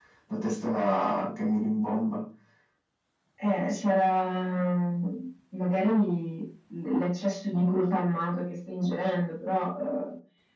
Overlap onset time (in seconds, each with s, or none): none